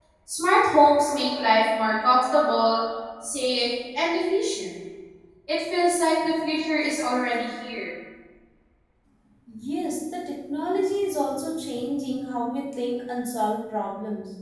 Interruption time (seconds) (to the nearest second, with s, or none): none